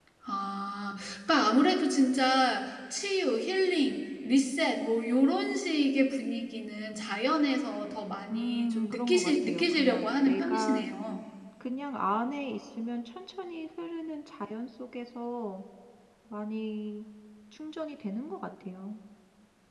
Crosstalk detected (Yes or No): Yes